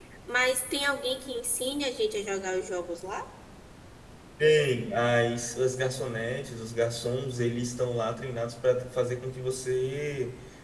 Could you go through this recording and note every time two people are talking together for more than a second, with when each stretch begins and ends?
none

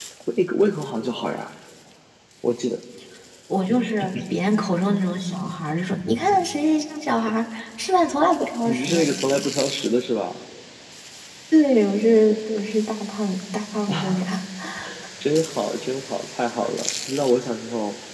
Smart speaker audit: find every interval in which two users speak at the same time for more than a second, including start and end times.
none

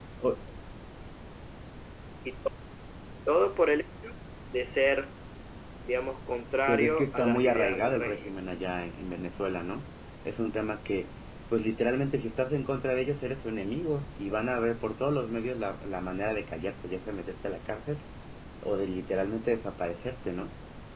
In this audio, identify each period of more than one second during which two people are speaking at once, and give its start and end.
6.7-8.4

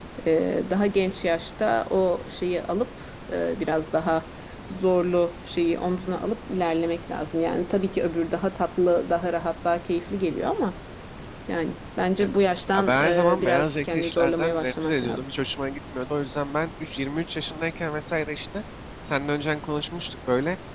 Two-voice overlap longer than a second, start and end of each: 12.8-15.3

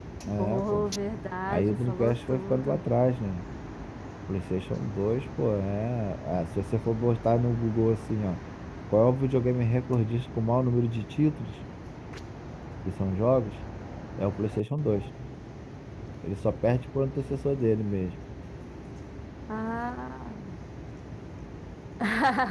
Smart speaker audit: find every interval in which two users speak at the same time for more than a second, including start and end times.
1.5-2.8

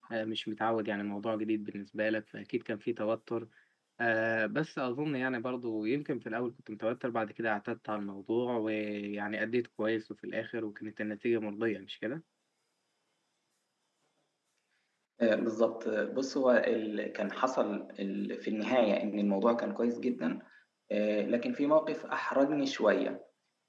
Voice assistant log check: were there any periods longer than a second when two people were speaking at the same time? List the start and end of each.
none

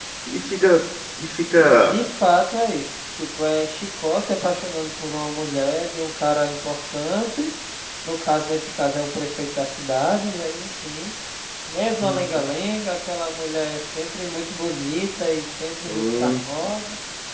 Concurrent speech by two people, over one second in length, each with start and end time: none

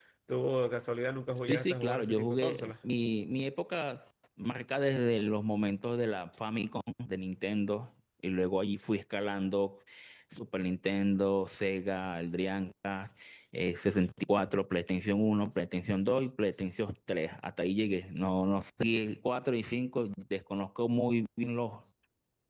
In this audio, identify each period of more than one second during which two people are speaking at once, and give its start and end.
1.5-2.7

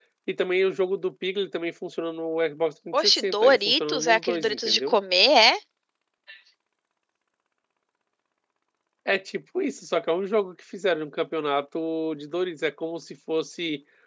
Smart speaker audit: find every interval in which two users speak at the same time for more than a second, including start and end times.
2.9-5.0

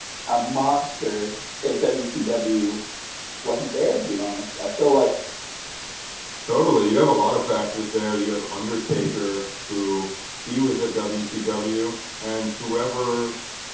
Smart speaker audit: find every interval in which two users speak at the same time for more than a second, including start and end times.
none

